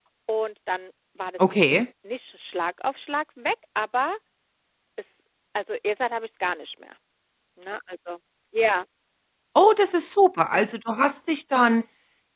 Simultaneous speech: No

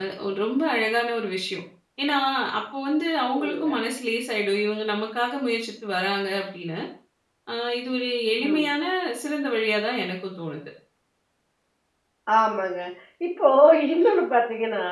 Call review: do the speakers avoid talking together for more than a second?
Yes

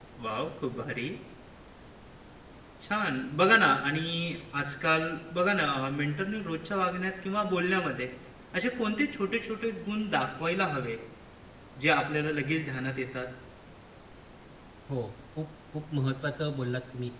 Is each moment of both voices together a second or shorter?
Yes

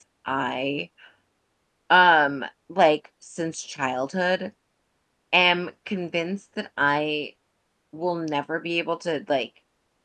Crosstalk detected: No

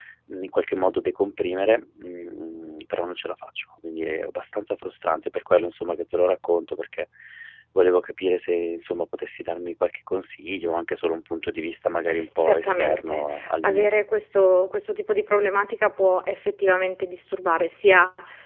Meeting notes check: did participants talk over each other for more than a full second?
Yes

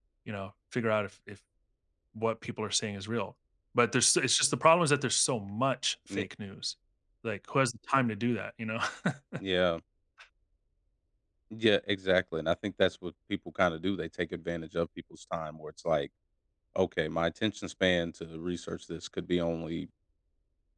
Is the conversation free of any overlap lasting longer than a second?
Yes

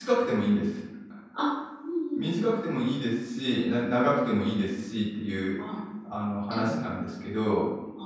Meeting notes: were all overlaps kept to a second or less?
Yes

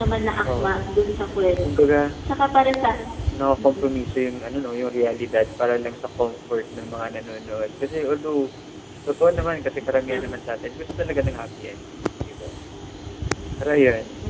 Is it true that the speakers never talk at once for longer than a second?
Yes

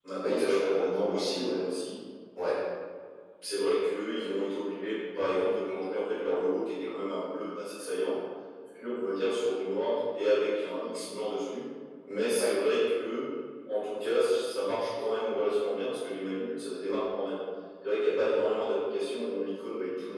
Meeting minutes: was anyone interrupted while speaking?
Yes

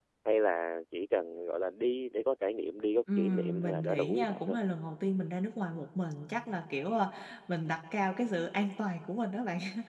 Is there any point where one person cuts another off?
Yes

